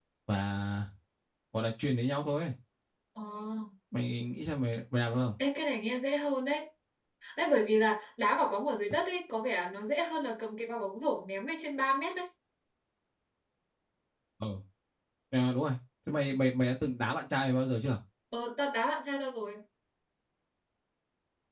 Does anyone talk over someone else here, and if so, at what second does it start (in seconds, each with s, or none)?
none